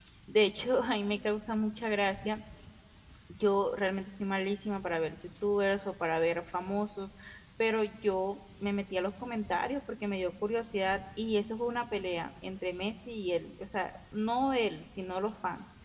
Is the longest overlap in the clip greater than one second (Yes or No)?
No